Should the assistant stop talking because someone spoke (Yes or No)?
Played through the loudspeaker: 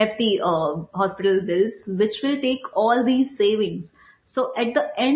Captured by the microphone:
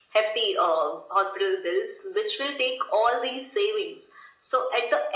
No